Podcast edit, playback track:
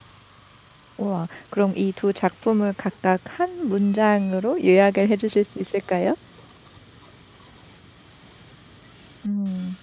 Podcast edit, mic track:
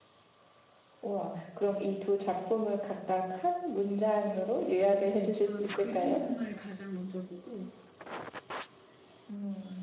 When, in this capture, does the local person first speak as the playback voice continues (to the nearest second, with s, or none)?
4 s